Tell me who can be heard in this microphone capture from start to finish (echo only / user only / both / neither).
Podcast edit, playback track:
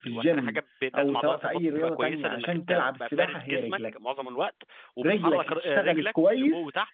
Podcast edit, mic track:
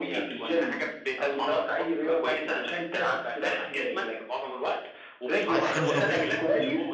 both